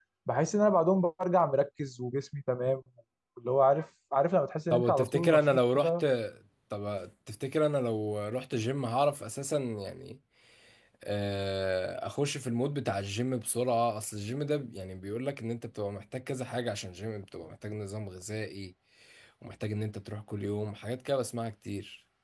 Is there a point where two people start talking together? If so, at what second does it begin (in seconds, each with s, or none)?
4.7 s